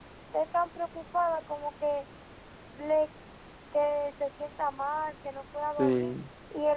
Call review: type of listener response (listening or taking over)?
listening